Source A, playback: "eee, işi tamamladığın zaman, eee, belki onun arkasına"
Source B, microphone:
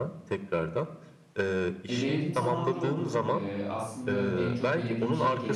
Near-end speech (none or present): present